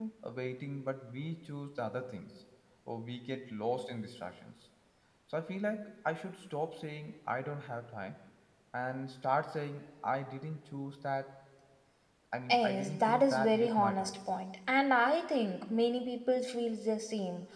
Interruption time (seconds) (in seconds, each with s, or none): 12.5 s